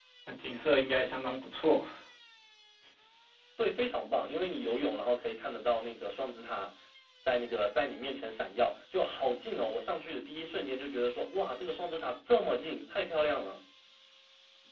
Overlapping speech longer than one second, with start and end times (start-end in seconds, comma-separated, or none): none